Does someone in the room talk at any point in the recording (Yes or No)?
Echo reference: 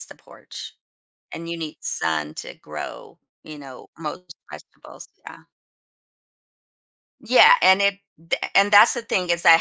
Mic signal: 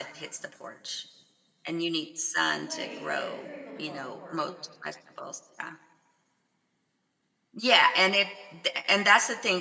Yes